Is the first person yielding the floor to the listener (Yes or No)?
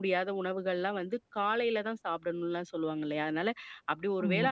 No